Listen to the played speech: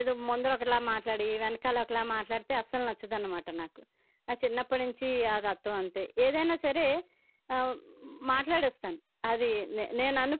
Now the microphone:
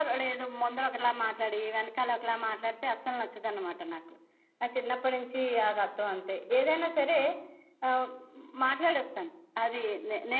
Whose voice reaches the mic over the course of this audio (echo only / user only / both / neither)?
echo only